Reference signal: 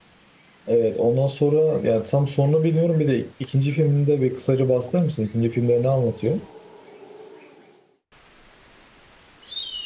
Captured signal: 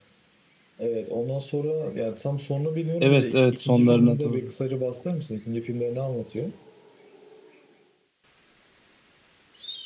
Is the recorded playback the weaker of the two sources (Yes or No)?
Yes